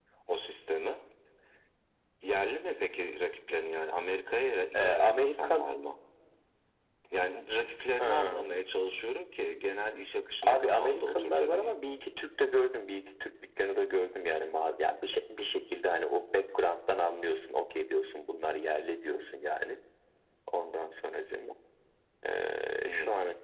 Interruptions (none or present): present